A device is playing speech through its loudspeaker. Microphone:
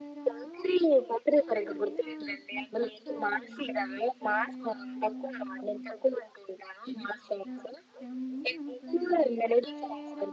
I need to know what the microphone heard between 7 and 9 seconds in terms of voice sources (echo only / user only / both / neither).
both